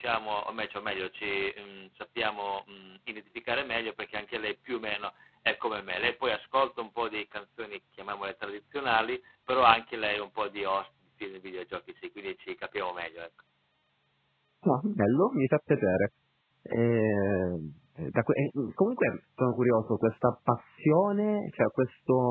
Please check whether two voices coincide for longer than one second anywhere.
No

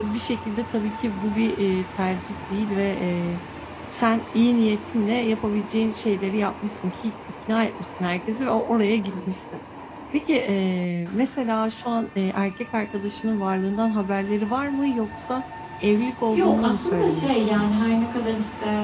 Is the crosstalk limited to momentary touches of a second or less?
No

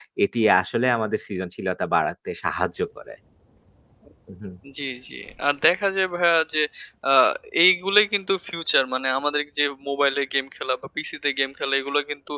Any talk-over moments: No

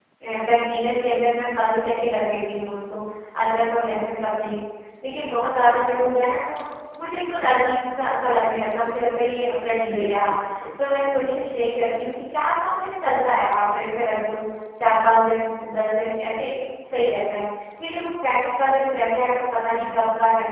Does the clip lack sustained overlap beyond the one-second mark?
Yes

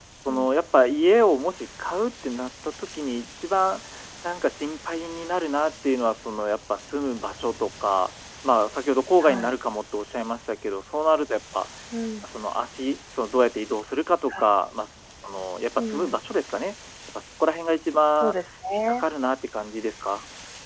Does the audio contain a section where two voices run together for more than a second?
No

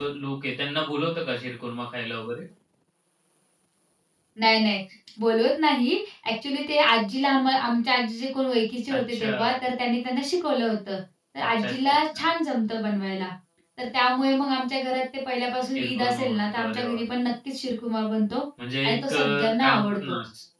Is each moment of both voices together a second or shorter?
No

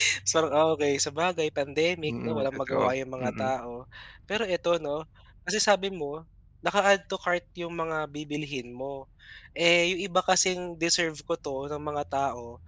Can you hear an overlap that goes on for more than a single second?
Yes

